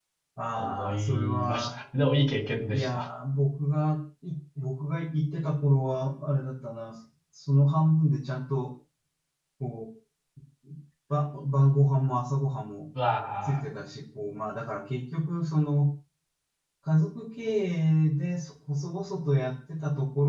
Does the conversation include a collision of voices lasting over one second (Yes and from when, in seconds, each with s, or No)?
Yes, from 0.5 s